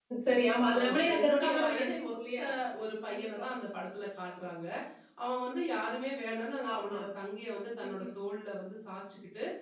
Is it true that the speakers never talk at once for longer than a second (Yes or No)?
No